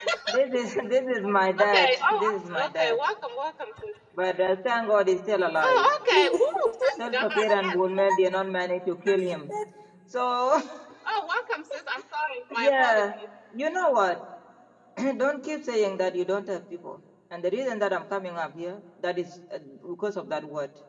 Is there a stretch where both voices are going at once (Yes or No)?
Yes